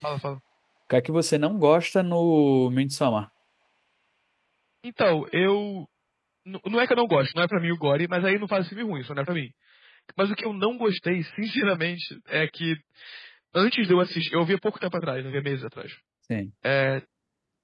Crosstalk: none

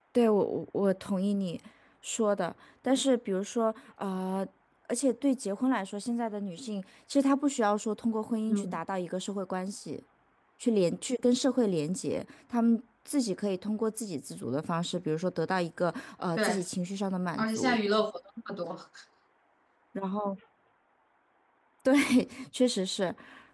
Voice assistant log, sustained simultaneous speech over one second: none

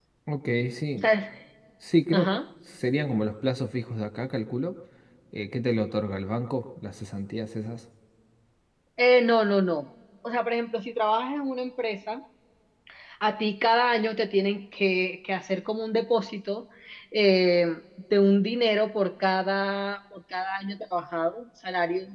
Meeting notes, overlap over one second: none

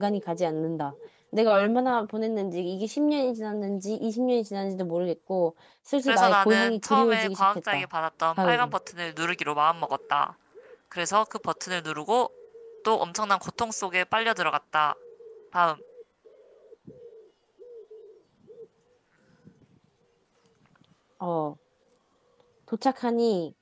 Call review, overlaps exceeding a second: present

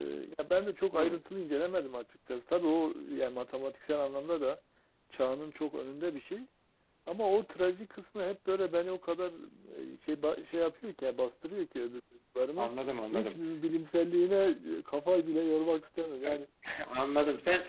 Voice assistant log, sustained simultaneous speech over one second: none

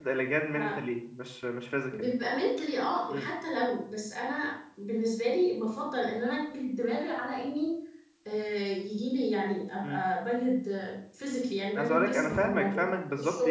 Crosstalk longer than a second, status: present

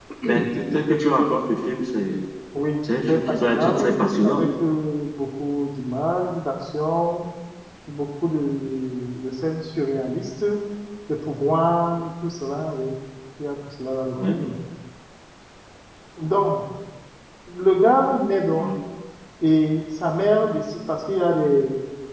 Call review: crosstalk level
present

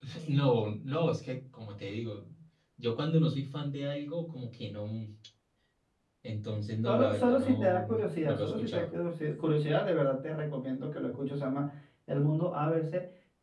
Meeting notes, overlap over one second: present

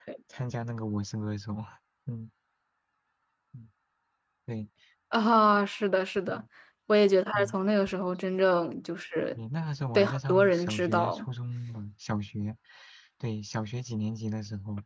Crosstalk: present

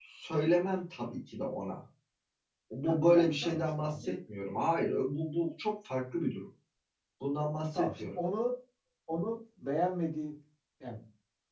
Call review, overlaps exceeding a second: present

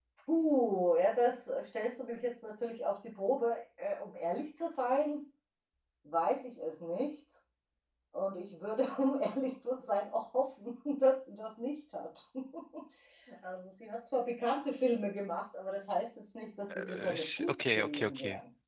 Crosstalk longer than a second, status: present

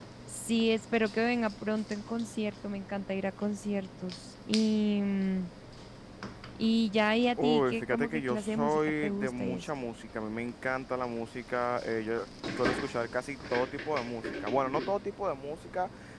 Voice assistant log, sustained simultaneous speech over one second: present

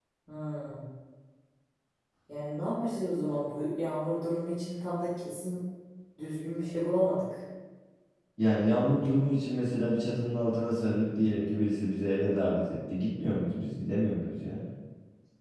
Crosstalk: none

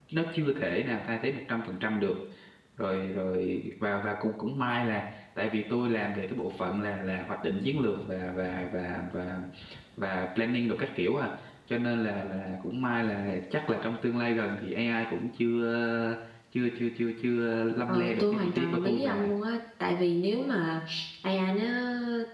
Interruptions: present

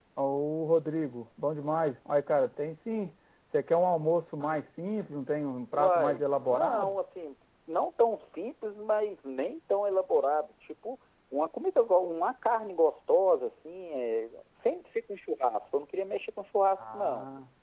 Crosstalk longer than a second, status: present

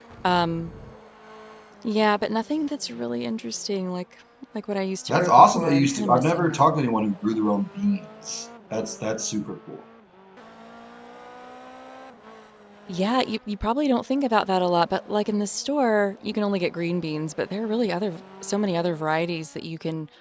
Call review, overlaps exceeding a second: present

